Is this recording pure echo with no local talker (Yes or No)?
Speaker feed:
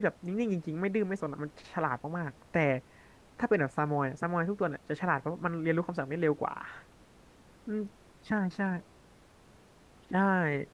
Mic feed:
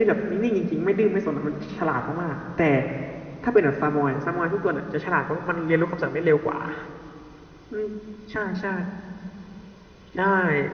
Yes